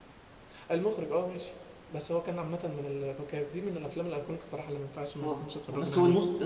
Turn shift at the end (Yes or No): Yes